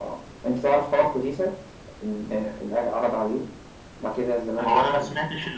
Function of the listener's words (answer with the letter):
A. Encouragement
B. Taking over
B